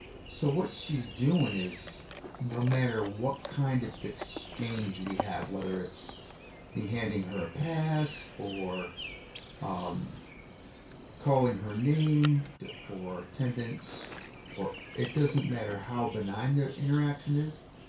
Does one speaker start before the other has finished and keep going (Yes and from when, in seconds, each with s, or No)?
No